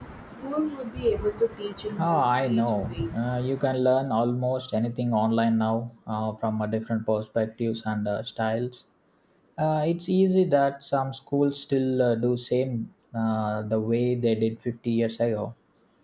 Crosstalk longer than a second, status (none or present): present